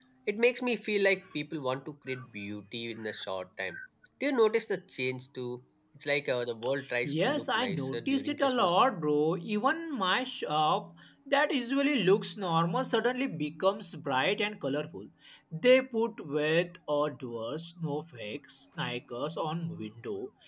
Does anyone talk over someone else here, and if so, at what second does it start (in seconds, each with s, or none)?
7.0 s